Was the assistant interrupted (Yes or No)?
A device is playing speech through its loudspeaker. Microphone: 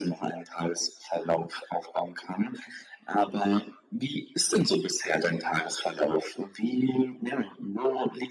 No